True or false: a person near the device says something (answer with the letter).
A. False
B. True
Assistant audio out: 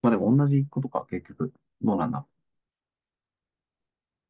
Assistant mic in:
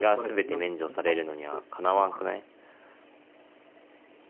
B